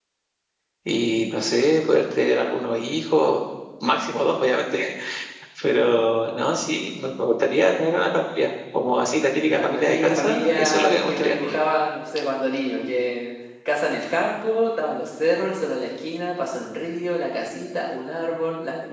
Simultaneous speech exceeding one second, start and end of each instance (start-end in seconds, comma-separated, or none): 9.4-11.4